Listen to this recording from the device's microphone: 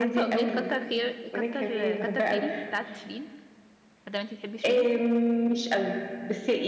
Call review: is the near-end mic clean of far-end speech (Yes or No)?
No